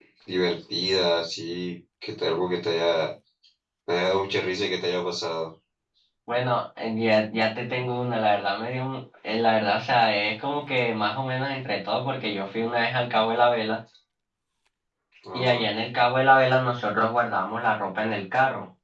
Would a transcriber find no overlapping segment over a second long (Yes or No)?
Yes